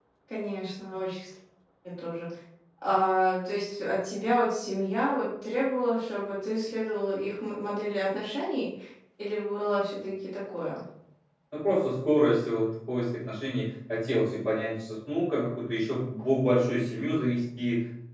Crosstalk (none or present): none